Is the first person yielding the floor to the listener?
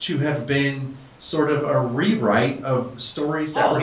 Yes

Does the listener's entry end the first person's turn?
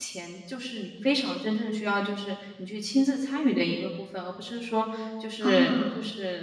No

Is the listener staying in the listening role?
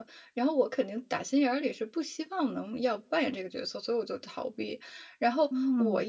Yes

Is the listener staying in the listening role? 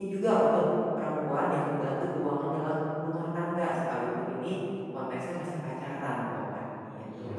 No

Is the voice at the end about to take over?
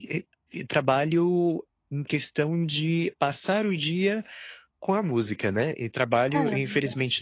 No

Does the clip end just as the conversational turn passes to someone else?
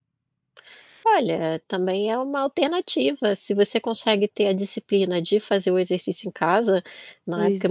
No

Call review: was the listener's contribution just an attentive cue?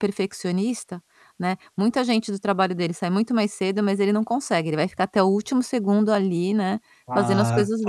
No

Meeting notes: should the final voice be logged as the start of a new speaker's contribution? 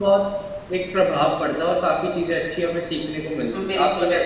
Yes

